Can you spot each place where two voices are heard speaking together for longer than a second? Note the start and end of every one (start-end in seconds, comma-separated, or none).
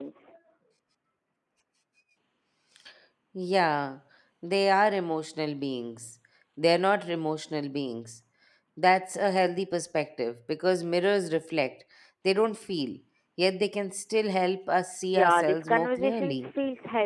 15.1-16.5